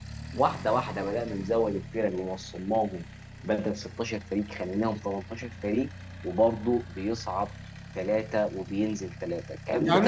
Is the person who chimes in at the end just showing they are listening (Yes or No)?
No